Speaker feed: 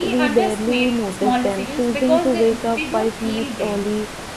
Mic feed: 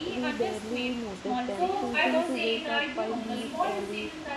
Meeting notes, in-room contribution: present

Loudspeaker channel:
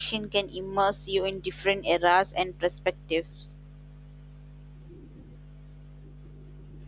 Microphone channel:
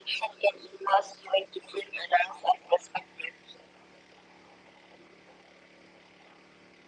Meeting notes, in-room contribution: none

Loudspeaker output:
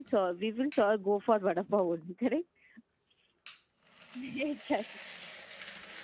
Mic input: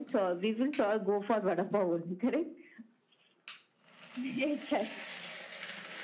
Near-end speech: none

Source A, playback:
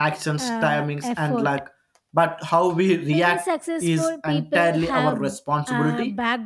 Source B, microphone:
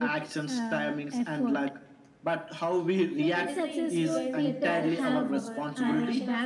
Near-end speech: present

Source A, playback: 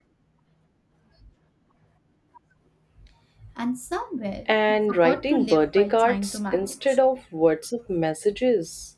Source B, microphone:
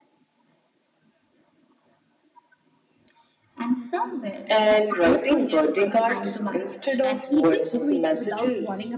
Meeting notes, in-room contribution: present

